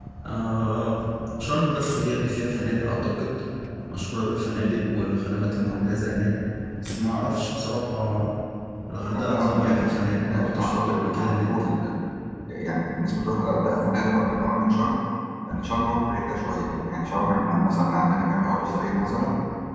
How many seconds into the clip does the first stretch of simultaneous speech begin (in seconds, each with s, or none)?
9.1 s